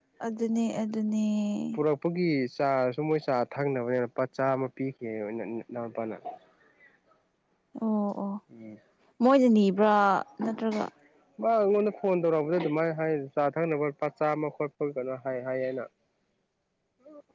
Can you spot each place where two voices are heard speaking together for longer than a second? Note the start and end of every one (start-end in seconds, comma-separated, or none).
none